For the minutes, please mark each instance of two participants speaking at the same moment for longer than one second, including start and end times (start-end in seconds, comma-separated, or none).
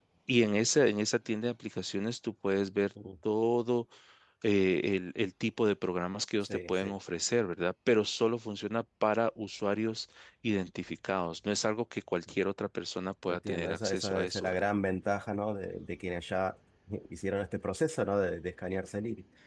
13.3-14.6